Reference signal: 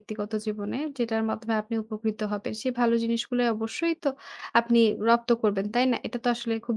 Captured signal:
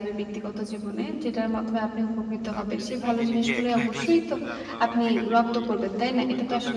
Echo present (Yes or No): Yes